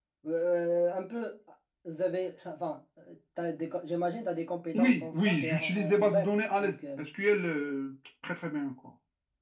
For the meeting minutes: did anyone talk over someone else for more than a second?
Yes, from 4.7 s

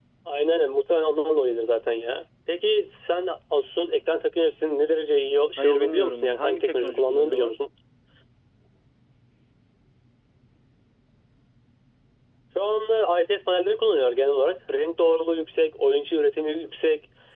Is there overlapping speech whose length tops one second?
Yes, from 5.6 s

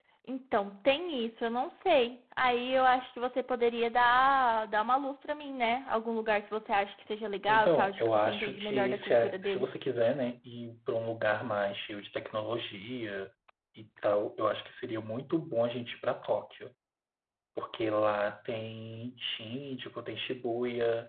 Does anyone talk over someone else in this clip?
Yes, from 7.5 s

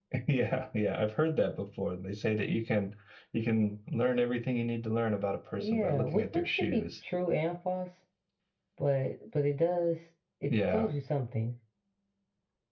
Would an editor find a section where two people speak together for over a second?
Yes, from 5.6 s

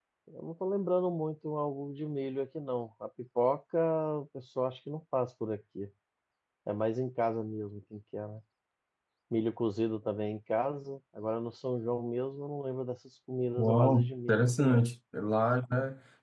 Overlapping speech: Yes, from 13.6 s

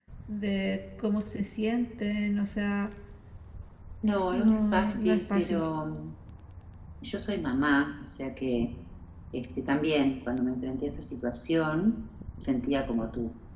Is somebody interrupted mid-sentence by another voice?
Yes, from 4.3 s

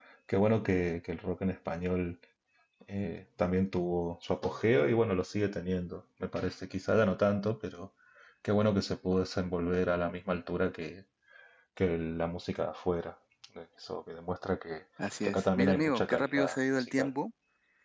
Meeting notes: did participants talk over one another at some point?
Yes, from 15.2 s

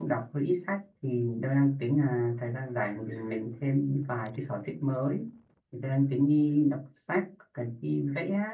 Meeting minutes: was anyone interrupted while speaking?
No

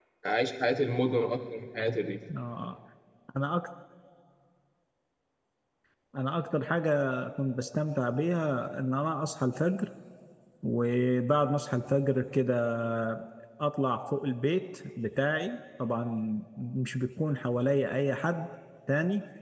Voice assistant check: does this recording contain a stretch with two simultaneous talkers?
No

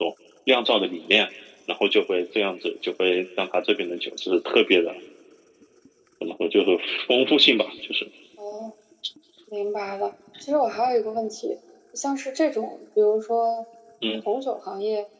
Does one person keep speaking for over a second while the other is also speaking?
No

